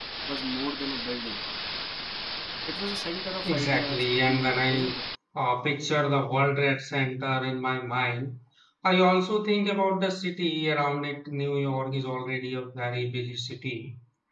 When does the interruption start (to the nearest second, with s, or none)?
4 s